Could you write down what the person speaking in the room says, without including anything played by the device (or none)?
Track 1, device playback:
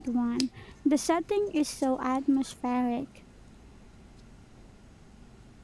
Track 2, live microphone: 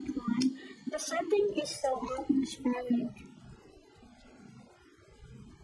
none